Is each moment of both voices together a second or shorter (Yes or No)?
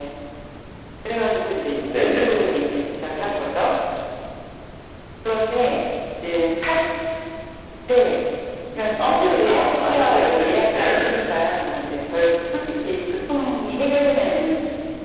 No